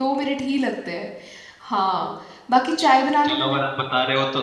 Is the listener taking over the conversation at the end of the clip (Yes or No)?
Yes